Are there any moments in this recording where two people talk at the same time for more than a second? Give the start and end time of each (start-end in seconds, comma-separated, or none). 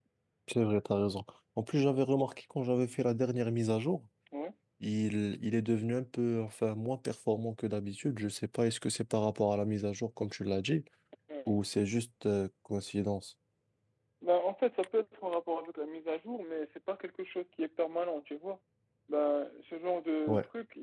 none